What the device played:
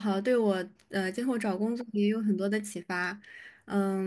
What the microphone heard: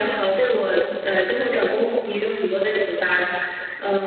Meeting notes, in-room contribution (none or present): none